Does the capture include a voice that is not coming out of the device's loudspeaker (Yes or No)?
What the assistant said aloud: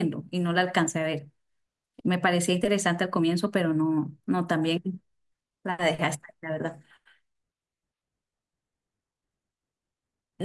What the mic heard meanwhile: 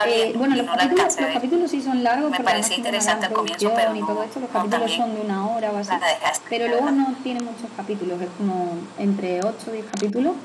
Yes